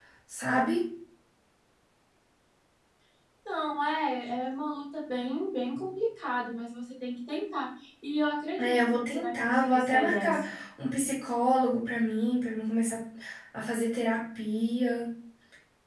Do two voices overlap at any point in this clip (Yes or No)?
Yes